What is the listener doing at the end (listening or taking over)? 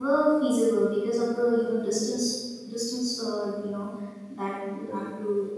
listening